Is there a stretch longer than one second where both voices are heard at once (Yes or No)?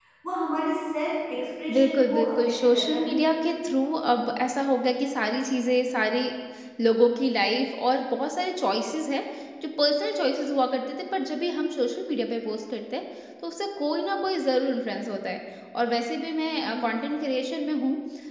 Yes